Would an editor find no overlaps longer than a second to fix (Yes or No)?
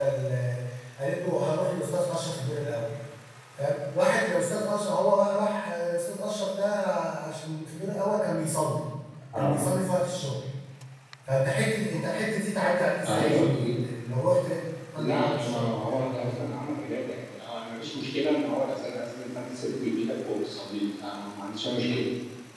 No